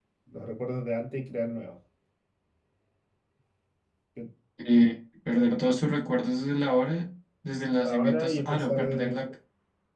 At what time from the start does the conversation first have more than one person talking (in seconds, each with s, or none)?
7.8 s